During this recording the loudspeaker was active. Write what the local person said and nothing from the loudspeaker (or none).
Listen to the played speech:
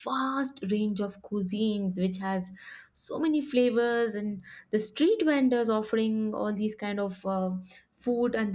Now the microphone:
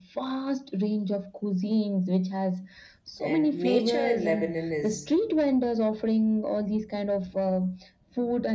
and nature in lebanon is